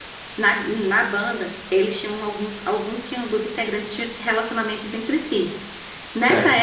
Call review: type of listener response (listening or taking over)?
listening